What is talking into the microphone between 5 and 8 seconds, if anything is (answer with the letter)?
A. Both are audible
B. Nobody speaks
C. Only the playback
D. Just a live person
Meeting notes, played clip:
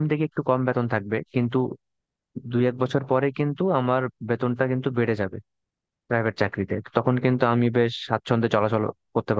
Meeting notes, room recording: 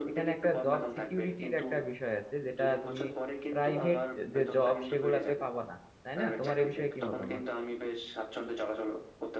A